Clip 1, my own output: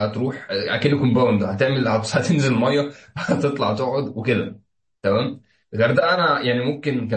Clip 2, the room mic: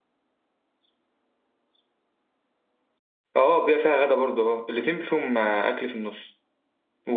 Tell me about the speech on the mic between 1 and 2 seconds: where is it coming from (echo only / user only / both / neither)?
neither